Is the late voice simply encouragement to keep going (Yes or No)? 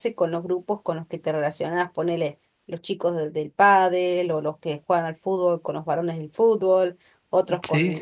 Yes